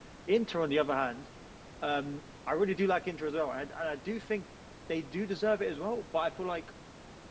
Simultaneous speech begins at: none

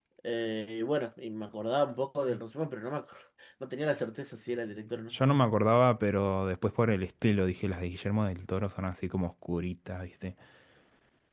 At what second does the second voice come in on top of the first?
none

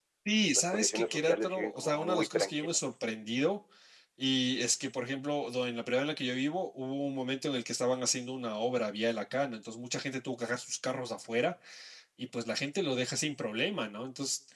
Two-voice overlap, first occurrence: 0.6 s

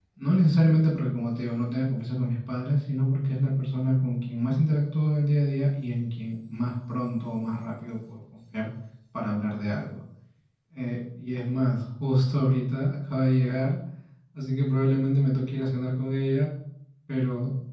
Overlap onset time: none

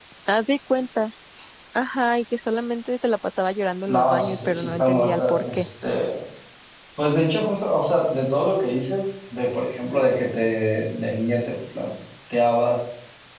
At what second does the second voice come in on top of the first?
3.9 s

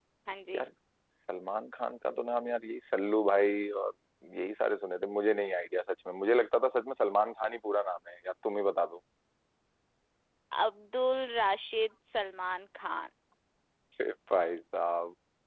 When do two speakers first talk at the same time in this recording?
none

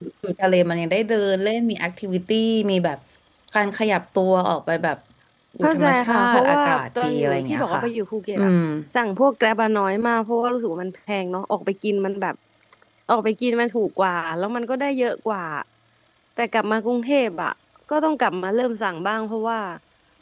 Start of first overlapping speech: 5.6 s

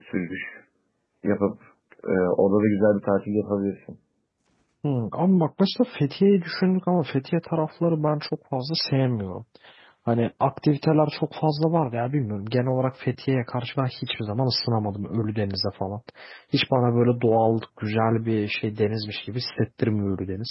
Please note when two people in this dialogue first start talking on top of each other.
none

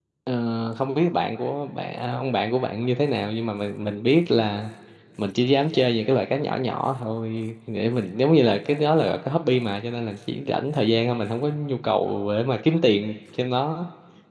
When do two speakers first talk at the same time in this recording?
none

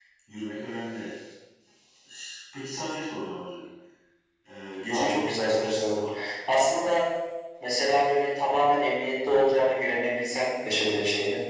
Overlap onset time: 4.9 s

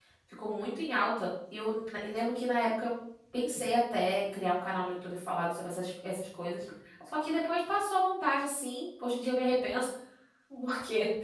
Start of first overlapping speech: none

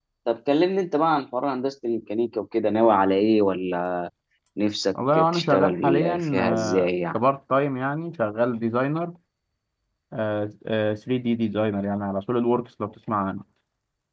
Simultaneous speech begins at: 5.1 s

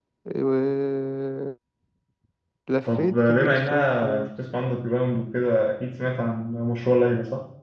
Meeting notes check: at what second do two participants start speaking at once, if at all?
2.8 s

